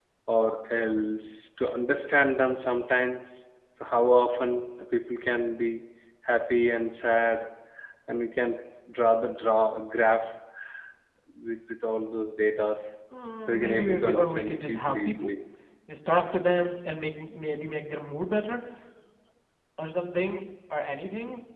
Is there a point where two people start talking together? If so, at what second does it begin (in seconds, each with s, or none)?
13.5 s